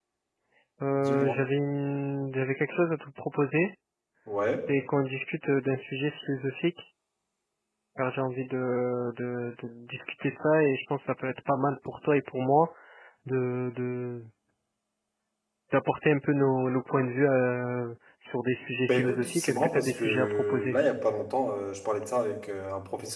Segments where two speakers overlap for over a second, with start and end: 18.9-20.8

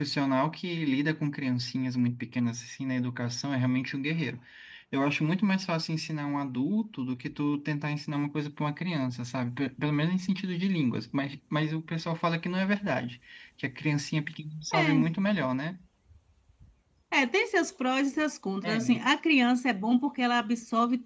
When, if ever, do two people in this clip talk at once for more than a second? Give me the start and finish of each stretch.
none

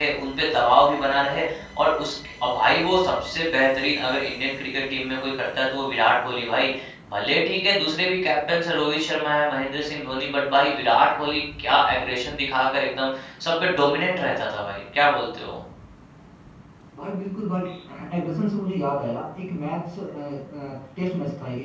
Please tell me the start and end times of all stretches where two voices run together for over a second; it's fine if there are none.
none

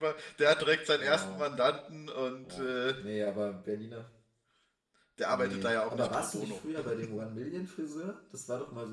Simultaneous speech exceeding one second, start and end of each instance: 5.3-6.6

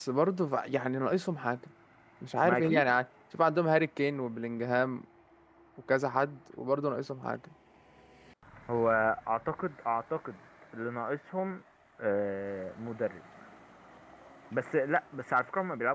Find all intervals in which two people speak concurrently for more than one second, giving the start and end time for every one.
none

